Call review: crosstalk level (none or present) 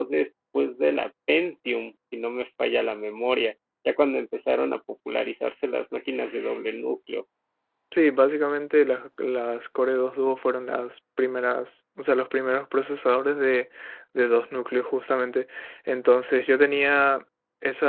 none